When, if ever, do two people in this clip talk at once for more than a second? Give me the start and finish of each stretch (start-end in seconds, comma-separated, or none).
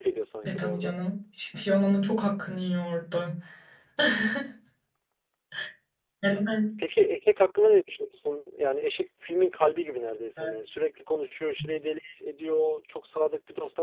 none